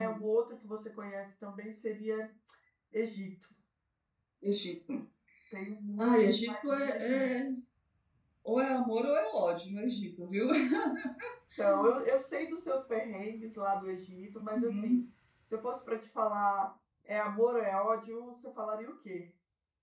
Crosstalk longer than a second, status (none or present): present